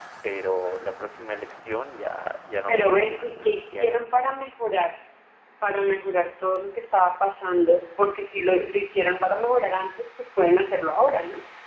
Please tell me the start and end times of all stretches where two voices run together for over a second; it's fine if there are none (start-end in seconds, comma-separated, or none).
2.7-4.3